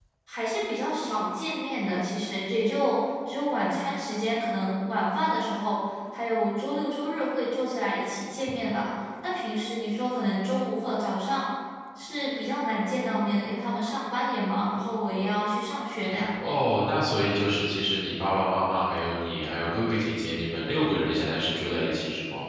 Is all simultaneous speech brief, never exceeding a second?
Yes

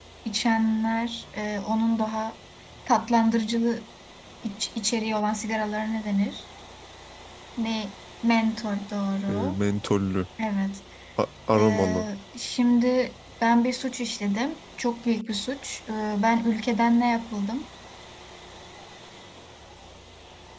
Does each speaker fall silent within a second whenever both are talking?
Yes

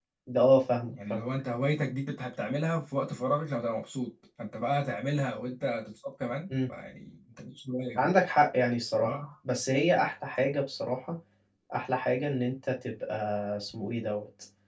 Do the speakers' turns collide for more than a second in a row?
No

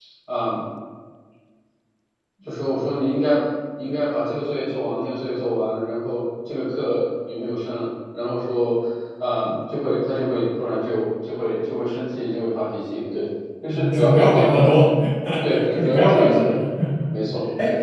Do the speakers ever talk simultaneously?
Yes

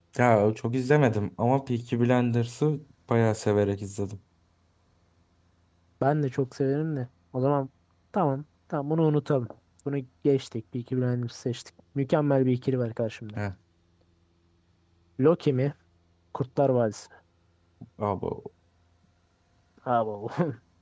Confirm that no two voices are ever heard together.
Yes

